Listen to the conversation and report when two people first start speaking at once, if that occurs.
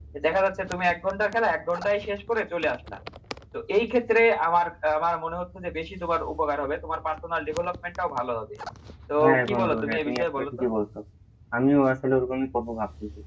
9.2 s

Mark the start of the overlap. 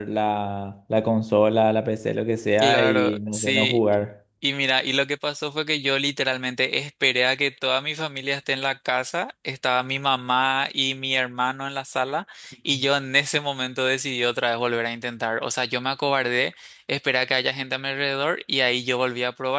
2.6 s

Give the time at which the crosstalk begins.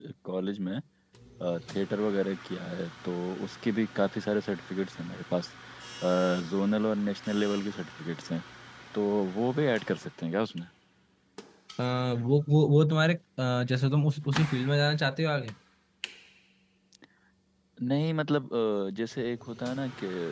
none

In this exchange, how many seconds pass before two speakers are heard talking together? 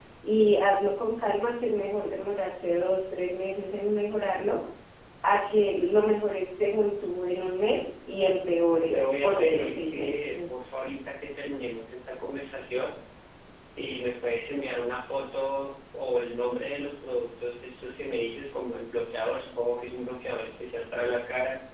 8.9 s

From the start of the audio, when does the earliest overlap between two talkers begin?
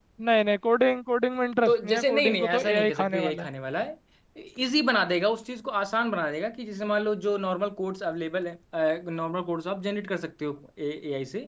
1.7 s

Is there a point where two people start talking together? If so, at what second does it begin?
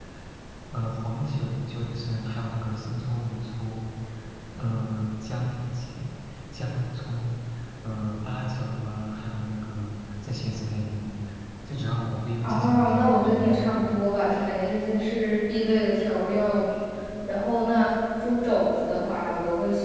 12.4 s

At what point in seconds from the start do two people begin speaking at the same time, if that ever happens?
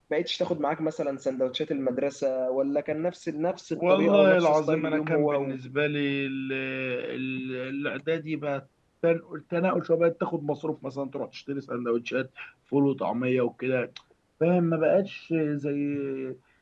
3.8 s

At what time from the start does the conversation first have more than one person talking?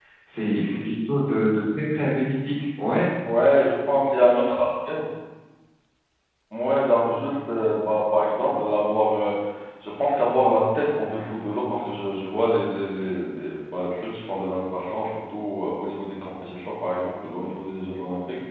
none

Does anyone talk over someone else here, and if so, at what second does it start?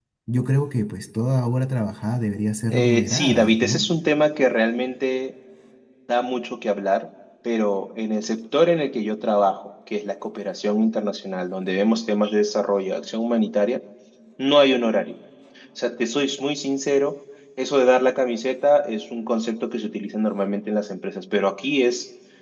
2.7 s

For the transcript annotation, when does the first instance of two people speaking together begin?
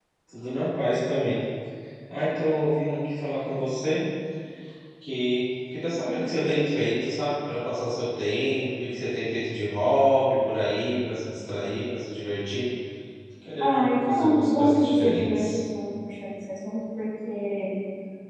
13.6 s

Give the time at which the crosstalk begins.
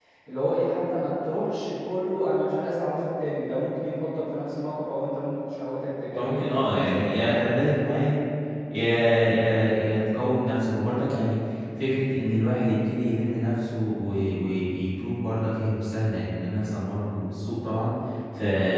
6.1 s

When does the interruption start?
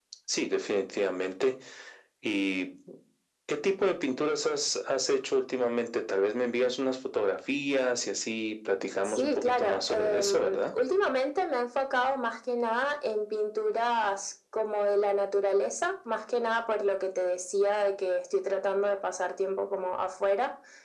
9.0 s

